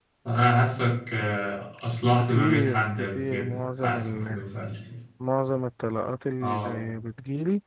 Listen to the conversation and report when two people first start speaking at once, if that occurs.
2.1 s

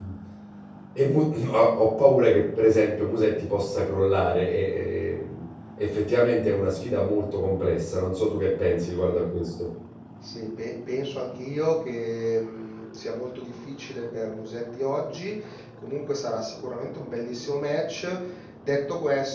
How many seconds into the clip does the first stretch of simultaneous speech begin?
none

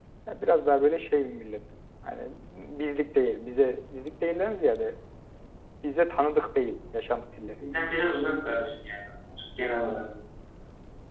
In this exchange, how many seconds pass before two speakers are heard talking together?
none

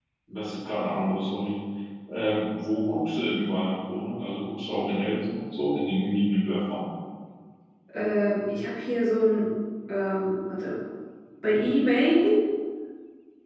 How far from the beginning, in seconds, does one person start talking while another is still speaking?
none

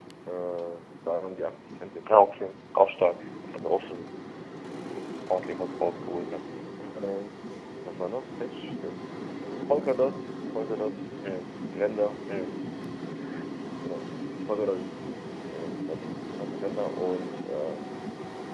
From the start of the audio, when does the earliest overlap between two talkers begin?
none

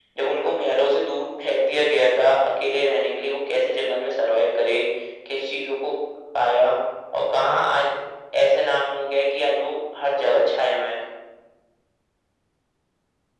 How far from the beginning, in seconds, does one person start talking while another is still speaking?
none

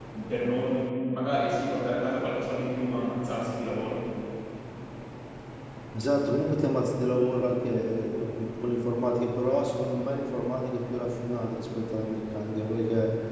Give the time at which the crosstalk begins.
none

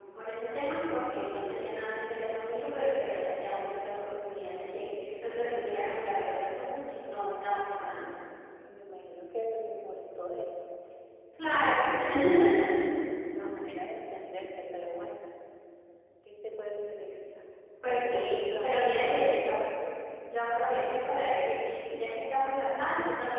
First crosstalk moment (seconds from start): 17.8 s

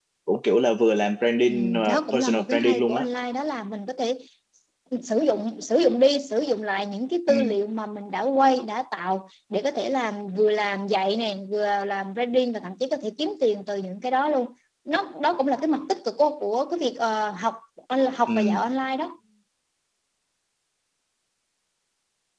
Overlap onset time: 1.5 s

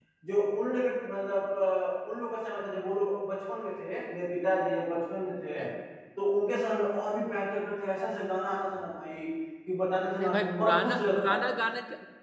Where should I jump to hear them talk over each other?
10.2 s

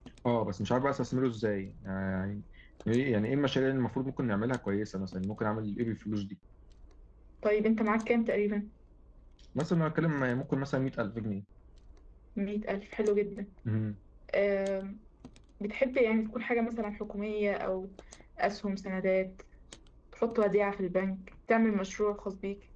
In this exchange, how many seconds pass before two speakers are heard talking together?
none

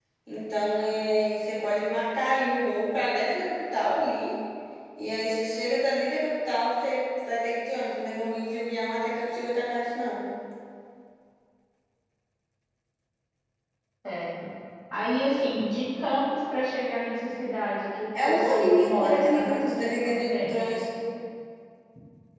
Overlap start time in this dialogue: 18.1 s

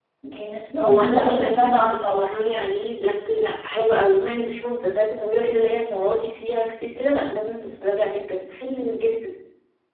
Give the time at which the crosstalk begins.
0.8 s

